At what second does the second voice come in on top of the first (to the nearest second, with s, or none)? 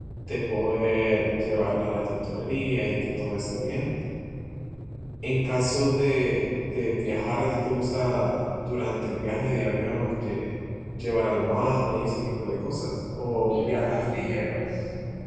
13 s